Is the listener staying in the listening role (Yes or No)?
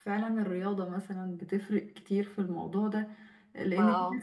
Yes